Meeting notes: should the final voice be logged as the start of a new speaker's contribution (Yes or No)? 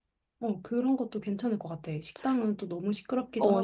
Yes